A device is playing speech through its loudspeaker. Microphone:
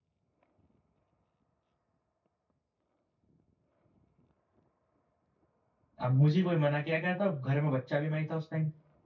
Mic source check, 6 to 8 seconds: user only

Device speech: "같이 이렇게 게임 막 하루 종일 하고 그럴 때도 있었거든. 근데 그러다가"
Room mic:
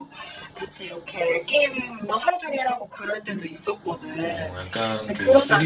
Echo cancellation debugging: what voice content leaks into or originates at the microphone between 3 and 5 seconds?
both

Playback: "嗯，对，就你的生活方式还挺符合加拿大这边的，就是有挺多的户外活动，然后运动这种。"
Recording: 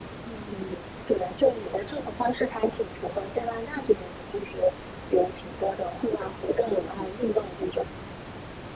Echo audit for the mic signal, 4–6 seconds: echo only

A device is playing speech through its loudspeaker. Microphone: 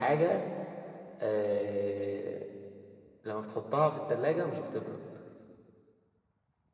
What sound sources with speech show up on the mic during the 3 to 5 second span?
echo only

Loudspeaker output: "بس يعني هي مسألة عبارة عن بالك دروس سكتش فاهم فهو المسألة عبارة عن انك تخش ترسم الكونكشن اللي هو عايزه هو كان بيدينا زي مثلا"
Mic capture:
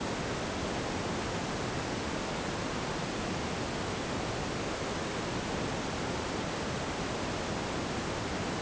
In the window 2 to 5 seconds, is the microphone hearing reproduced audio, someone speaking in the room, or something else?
neither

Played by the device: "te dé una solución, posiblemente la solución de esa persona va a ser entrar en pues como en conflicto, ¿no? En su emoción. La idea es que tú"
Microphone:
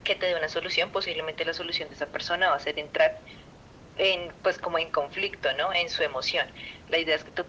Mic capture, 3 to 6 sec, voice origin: echo only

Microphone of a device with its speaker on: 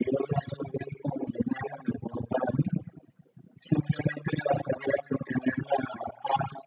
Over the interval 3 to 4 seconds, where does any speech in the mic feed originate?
echo only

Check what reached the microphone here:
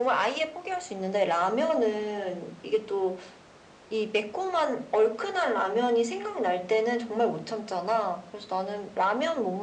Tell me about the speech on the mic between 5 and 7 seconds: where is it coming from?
echo only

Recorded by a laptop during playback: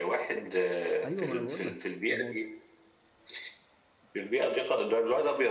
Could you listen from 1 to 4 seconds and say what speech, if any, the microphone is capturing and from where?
both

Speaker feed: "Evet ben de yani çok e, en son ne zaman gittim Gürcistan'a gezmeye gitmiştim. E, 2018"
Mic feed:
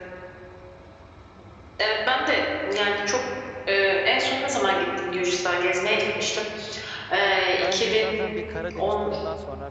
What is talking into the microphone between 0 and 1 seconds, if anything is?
neither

